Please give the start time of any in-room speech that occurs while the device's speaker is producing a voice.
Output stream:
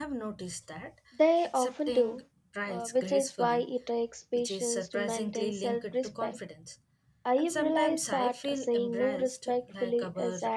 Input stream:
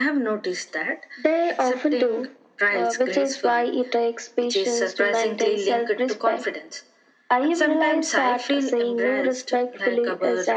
none

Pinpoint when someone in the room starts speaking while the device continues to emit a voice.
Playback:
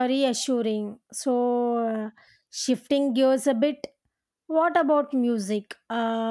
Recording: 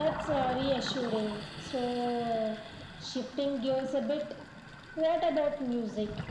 none

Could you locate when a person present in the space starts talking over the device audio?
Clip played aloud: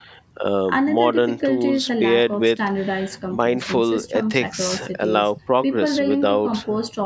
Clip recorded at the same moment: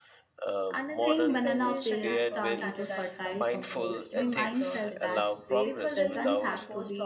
0.9 s

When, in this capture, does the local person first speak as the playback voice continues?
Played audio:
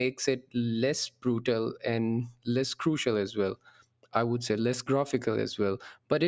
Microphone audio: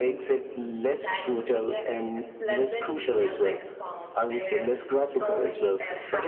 0.9 s

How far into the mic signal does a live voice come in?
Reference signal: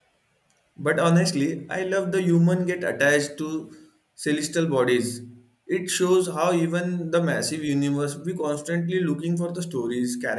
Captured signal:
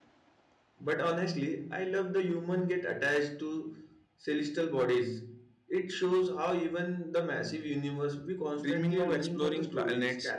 8.6 s

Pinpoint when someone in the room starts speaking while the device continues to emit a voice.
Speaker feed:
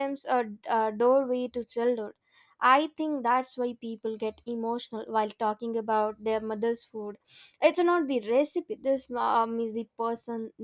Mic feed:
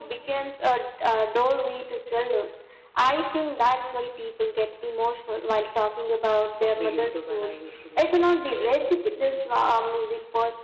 6.5 s

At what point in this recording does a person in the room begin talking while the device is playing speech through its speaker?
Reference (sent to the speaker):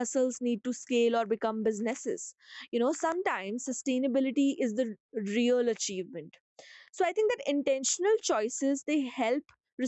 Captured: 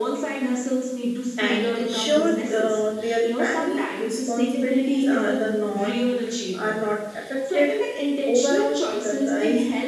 1.4 s

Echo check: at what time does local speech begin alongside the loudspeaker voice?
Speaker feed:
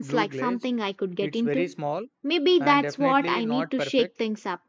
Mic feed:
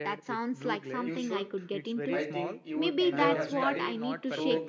1.0 s

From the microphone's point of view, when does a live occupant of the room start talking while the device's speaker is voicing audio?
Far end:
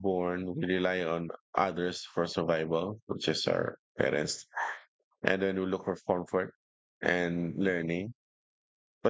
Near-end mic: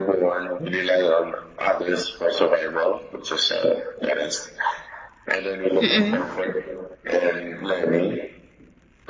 5.8 s

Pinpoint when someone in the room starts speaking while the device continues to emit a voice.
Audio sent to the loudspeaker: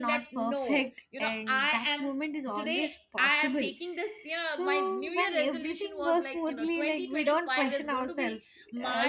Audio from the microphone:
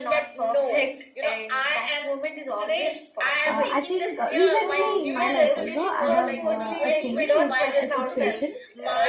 3.4 s

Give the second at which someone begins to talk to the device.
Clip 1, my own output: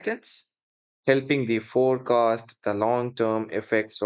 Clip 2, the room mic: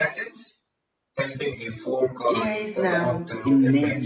2.3 s

